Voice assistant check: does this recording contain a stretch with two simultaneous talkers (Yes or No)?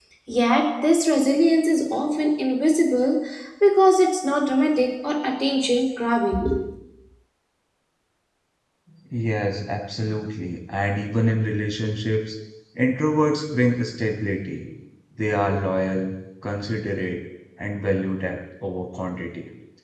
No